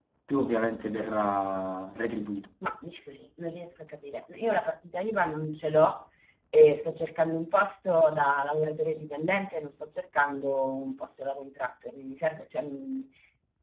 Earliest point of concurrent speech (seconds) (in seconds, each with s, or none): none